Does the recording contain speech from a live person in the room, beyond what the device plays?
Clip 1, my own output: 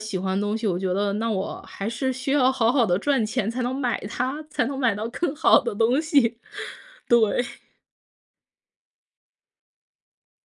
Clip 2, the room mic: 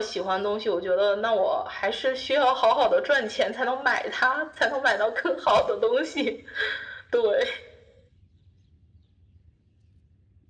No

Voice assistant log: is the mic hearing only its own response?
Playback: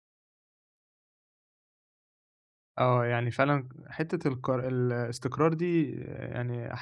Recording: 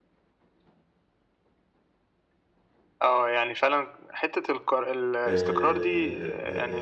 No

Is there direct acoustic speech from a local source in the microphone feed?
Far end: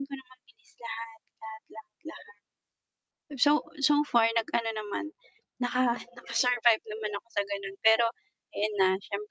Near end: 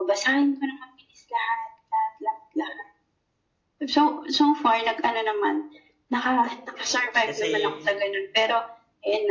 Yes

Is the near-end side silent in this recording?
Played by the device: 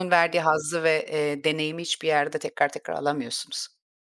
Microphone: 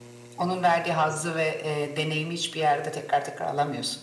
Yes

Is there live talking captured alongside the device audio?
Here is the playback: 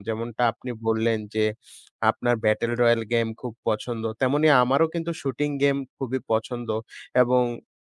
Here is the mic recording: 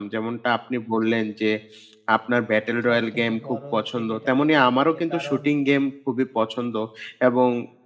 Yes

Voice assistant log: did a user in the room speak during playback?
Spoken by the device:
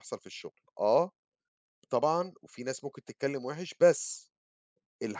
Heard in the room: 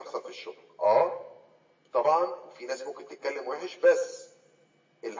No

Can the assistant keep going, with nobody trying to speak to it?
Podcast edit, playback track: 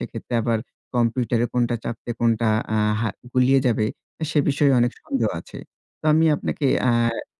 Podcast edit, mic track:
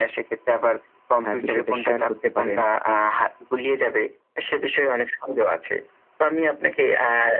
No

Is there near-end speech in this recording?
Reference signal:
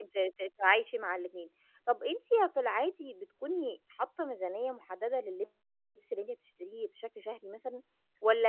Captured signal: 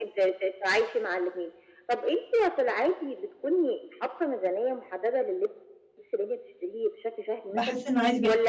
Yes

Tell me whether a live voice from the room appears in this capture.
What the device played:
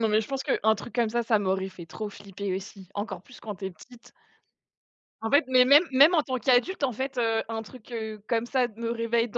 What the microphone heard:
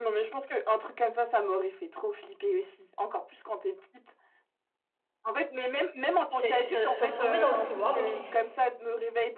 Yes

